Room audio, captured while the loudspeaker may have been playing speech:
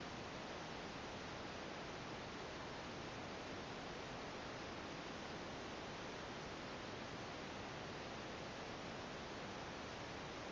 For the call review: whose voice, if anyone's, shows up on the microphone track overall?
neither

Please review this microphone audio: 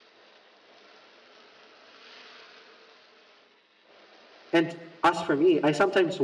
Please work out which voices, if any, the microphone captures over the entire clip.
user only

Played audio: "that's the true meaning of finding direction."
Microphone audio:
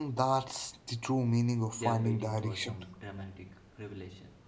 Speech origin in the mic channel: both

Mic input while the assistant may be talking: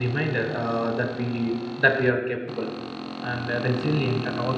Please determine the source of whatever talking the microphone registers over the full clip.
user only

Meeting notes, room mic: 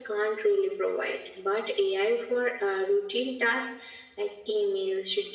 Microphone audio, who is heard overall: echo only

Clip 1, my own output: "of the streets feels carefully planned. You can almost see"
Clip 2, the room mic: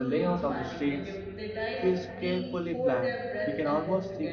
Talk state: both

